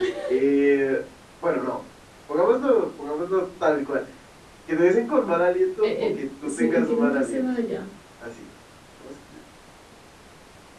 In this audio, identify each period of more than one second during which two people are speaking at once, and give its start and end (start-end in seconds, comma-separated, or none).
5.8-7.5